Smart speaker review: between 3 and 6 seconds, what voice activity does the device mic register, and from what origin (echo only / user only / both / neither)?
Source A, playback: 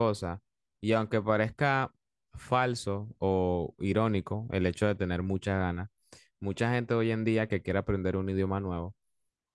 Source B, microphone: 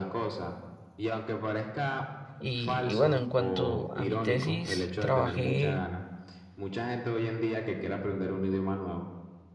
both